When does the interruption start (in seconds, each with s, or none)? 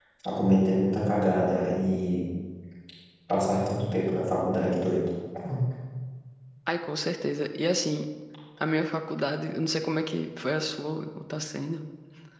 none